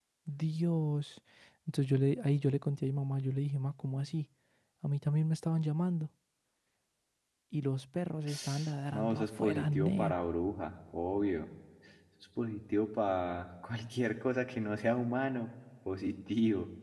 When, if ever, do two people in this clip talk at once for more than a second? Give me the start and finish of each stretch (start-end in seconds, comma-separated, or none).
8.9-10.1